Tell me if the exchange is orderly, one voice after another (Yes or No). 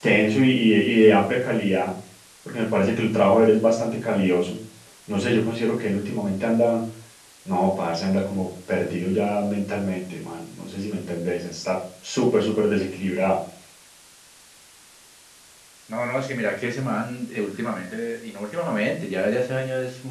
Yes